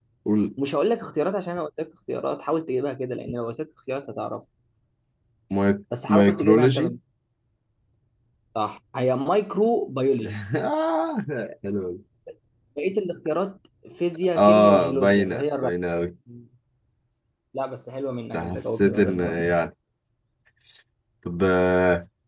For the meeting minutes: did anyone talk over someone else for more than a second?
Yes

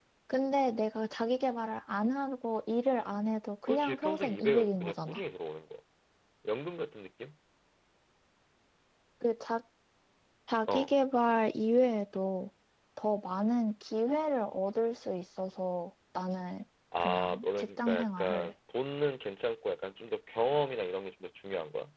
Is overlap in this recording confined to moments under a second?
No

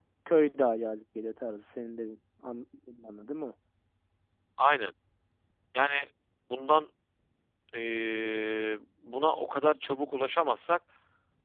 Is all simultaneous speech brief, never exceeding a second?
Yes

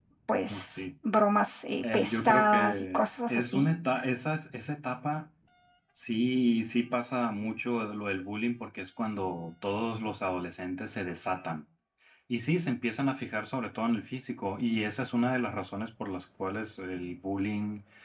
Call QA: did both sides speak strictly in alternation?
No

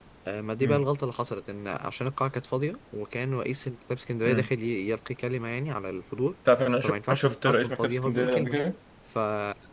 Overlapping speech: Yes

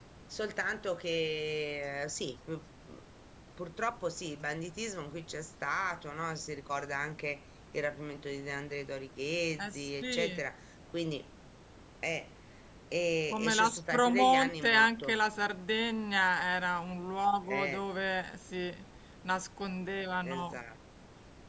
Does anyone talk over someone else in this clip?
Yes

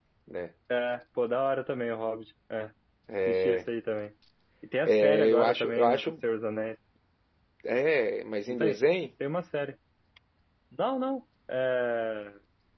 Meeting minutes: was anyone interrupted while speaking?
Yes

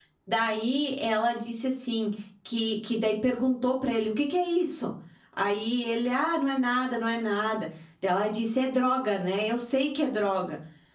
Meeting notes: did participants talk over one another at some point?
No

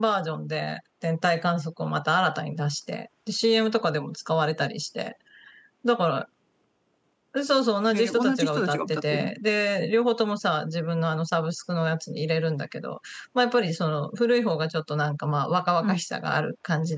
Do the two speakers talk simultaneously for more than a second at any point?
Yes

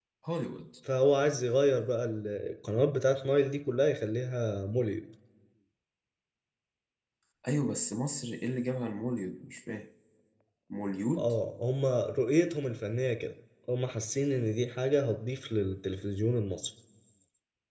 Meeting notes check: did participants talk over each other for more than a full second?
No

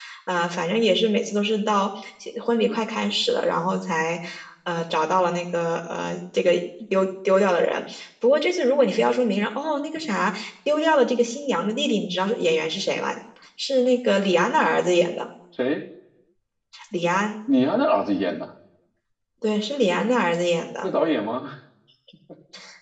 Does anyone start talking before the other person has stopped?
No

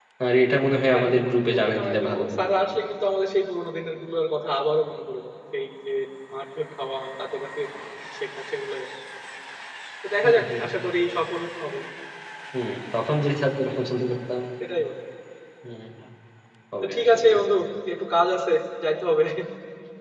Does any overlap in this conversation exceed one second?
Yes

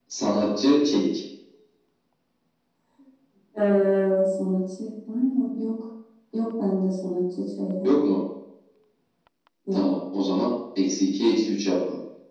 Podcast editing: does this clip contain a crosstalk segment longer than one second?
No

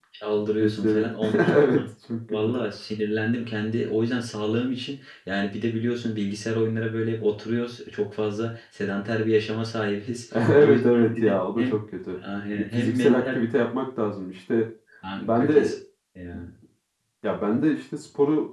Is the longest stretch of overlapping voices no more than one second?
No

